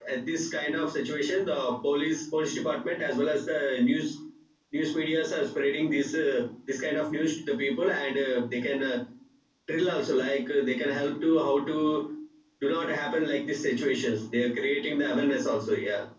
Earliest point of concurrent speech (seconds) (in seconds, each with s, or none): none